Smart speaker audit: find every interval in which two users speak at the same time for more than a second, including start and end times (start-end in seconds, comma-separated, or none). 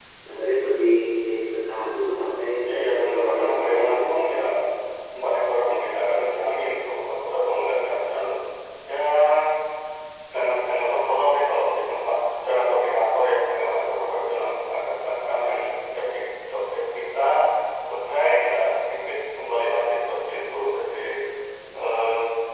2.7-4.0